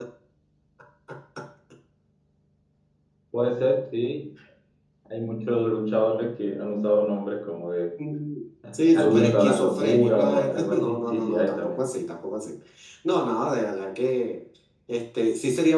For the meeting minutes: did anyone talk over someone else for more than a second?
Yes, from 8.7 s

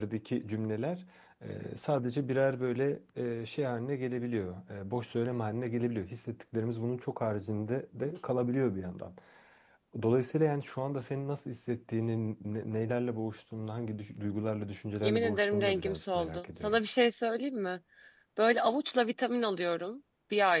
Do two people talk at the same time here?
Yes, from 15.0 s

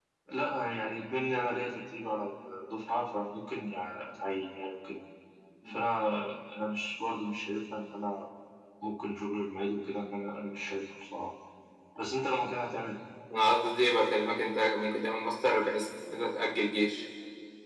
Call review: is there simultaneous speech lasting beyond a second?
No

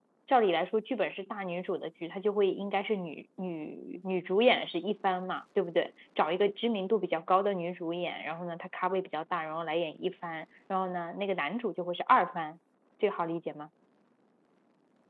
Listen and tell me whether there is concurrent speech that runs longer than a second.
No

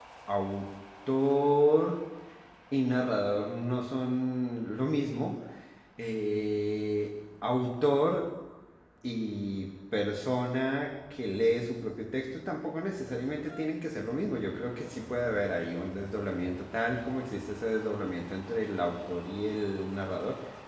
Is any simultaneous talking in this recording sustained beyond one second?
No

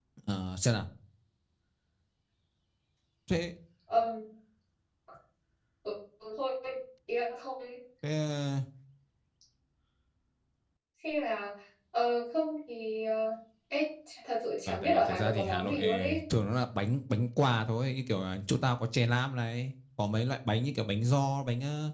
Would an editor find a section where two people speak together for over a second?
Yes, from 14.7 s

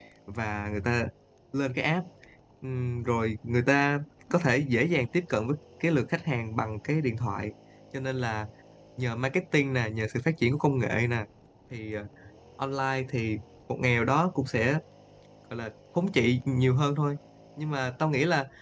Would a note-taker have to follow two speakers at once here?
No

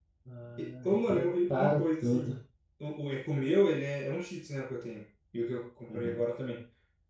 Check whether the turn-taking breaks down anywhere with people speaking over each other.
Yes, from 0.6 s

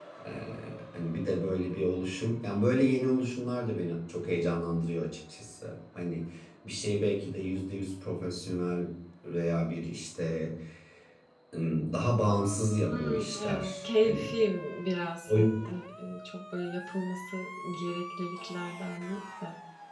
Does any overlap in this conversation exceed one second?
Yes, from 12.9 s

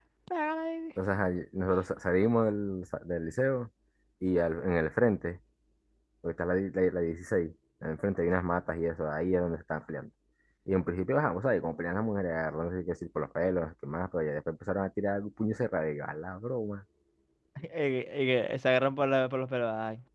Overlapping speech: No

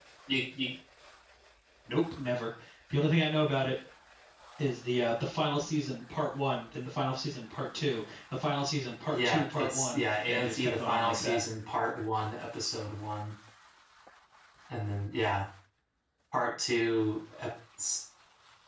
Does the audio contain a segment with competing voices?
Yes, from 9.1 s

